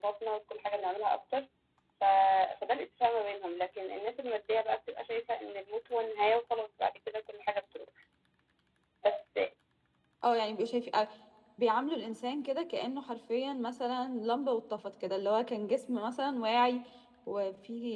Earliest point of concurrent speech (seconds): none

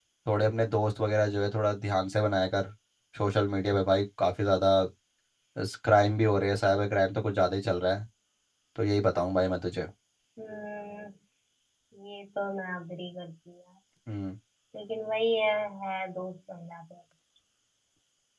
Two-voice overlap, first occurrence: none

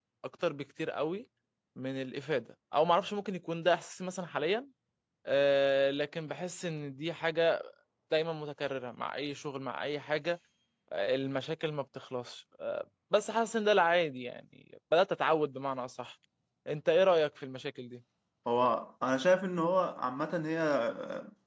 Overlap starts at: none

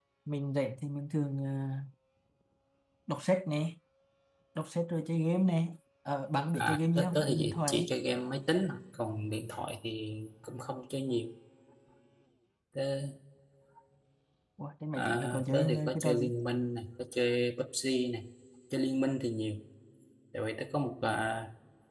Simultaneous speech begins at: 6.5 s

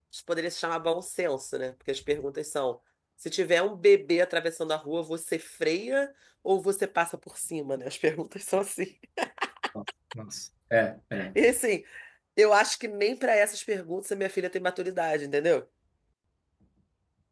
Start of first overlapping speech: none

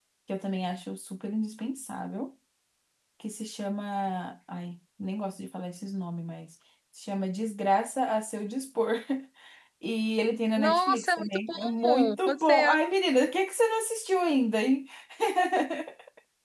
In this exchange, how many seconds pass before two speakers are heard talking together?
10.6 s

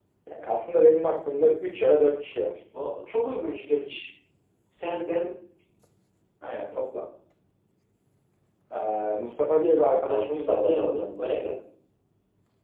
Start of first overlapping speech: 10.0 s

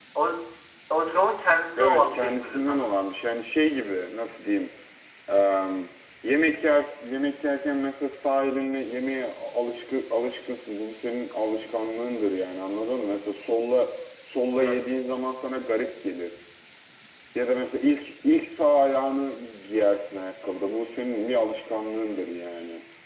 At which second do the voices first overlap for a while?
1.8 s

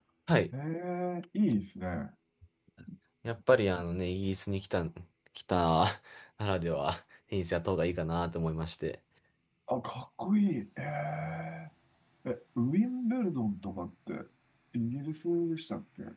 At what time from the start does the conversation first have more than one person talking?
none

